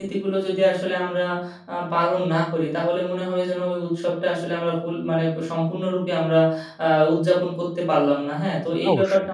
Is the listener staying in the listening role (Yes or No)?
Yes